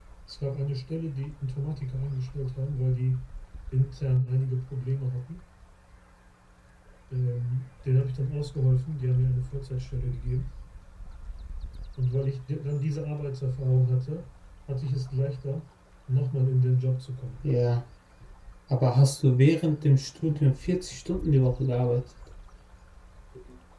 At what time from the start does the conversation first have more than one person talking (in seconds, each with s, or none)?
none